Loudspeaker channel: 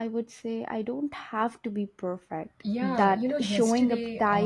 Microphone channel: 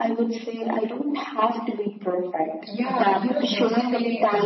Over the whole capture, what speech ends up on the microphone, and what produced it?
echo only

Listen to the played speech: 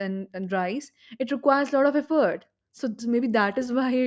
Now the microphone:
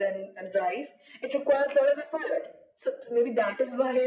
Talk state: echo only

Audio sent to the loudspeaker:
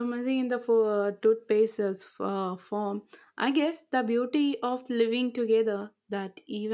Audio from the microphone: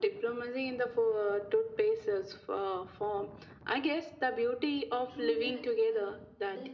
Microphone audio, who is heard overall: both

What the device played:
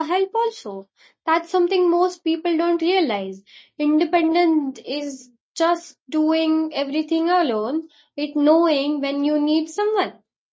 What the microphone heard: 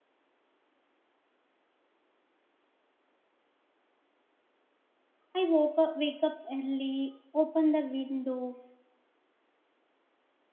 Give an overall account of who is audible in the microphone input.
user only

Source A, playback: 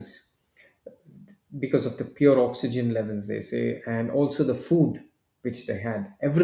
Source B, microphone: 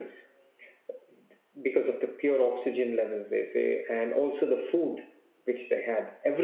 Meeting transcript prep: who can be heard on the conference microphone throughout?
echo only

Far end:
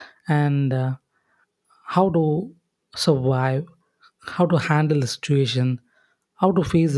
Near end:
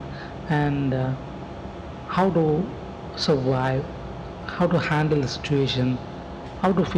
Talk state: echo only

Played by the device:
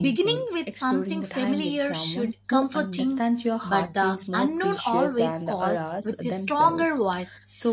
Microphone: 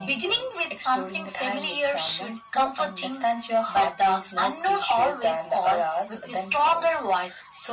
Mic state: echo only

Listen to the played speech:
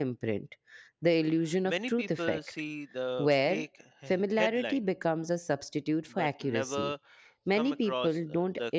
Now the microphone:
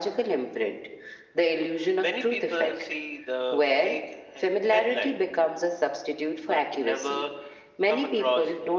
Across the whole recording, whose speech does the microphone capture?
echo only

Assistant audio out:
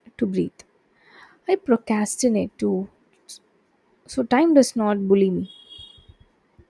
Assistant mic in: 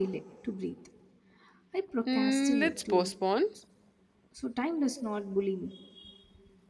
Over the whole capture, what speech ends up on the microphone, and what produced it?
both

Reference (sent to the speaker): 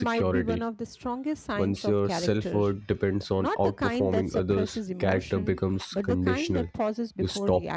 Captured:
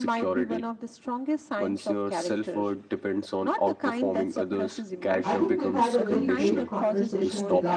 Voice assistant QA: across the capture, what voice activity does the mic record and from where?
both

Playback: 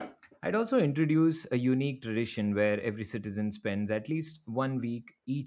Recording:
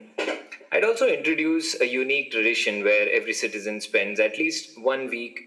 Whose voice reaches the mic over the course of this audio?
echo only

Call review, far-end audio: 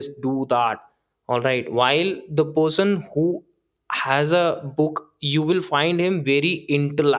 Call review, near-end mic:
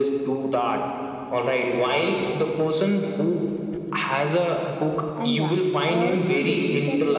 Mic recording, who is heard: both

